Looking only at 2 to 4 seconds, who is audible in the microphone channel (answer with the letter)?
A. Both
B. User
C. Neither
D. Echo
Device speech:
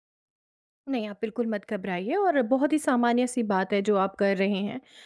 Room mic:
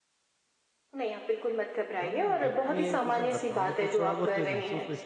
A